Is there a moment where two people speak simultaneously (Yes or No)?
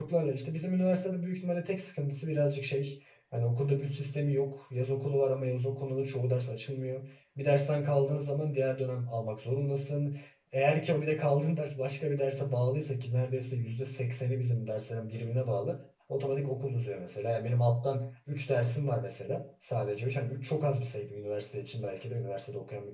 No